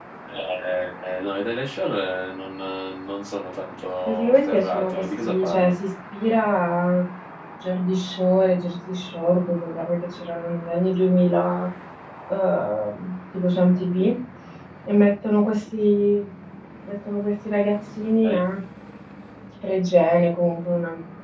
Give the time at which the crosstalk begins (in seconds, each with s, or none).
4.0 s